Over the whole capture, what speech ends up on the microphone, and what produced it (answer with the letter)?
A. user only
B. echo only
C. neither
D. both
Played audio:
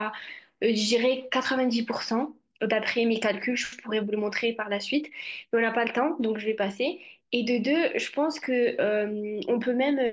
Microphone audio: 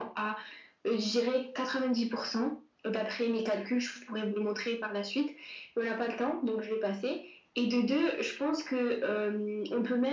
B